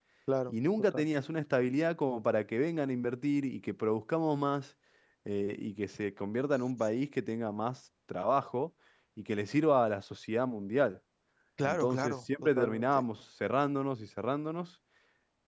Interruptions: present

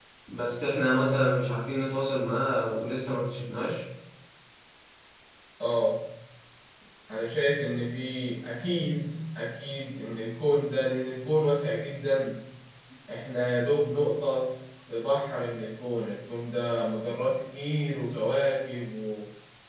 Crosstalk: none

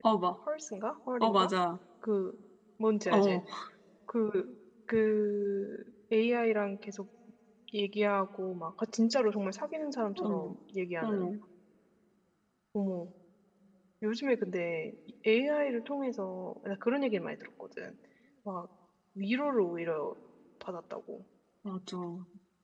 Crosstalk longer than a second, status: none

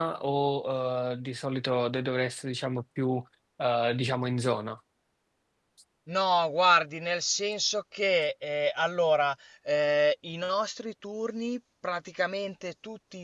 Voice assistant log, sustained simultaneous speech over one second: none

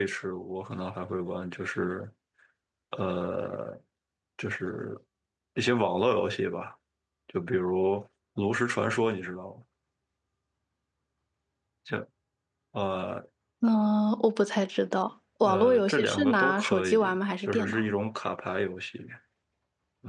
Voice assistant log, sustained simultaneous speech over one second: present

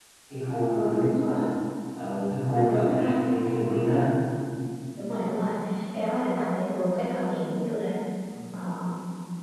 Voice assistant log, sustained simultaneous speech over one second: present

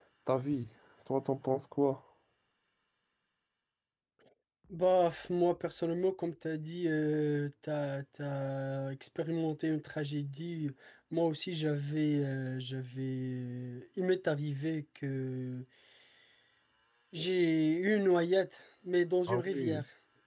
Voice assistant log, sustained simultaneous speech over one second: none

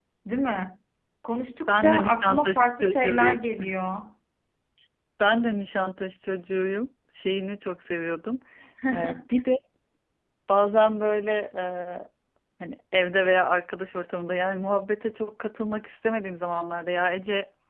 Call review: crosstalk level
present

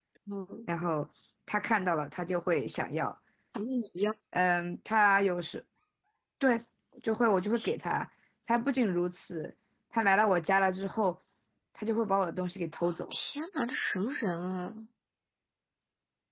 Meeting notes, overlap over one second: none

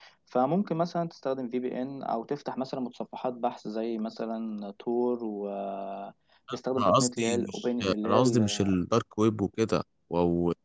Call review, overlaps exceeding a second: present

